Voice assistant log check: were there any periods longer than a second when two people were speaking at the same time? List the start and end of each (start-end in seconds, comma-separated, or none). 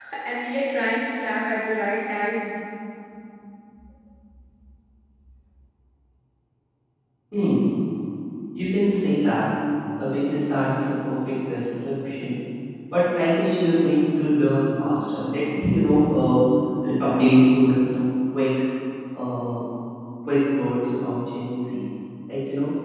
none